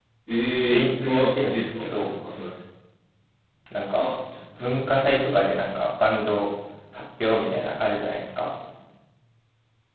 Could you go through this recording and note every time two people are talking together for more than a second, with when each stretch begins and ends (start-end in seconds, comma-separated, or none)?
0.6-2.1